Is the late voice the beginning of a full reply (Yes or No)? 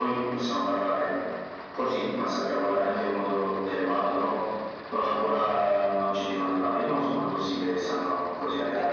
Yes